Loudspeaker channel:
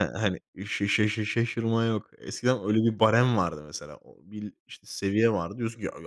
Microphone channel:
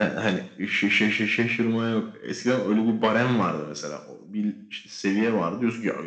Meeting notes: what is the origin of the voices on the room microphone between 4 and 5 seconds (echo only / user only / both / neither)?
echo only